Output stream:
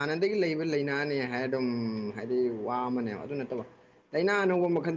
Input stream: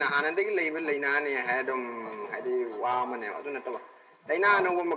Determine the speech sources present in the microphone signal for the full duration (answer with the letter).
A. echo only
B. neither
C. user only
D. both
D